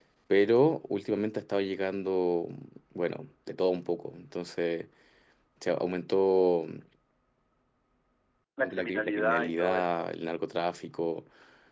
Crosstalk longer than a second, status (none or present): present